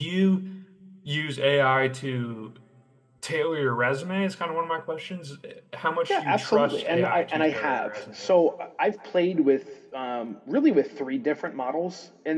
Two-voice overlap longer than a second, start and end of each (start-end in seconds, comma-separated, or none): 6.1-8.1